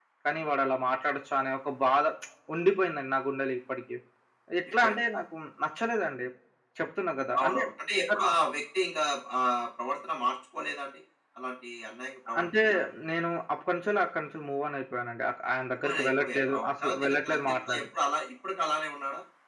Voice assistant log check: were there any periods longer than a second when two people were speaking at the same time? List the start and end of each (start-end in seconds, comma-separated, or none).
15.8-17.7